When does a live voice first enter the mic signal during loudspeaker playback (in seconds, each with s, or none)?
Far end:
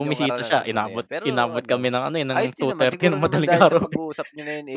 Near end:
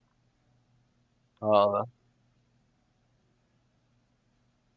1.4 s